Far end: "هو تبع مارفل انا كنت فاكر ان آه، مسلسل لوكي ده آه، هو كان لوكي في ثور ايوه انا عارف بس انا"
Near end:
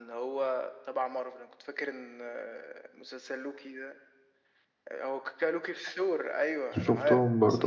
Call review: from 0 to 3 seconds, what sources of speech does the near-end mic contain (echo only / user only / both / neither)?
echo only